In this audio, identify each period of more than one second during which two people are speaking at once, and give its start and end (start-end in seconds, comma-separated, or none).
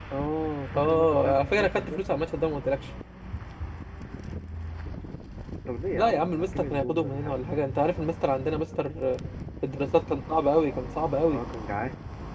0.8-2.0, 6.0-7.3